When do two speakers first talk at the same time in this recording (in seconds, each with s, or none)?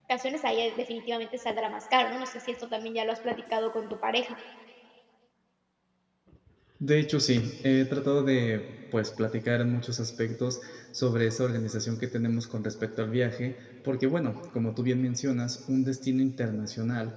none